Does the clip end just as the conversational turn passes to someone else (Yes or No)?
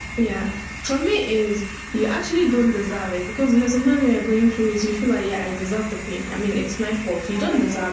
No